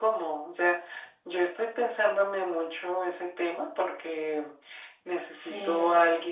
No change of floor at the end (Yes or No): Yes